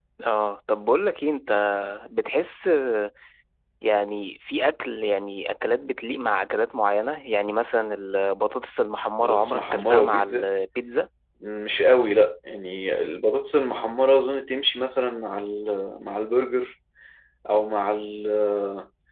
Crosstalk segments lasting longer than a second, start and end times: 9.2-10.5

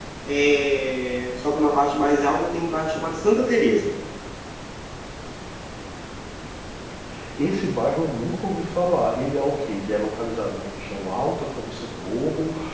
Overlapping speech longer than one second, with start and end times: none

